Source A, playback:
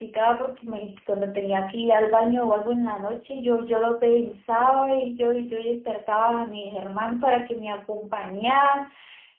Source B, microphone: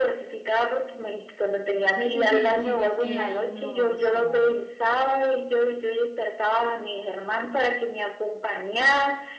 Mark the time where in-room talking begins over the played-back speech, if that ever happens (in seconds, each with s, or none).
1.9 s